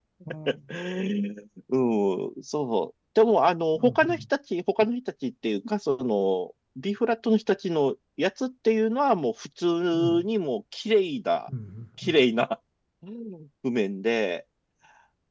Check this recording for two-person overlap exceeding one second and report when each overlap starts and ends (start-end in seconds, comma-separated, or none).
none